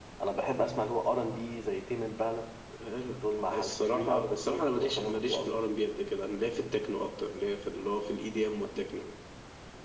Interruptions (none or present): present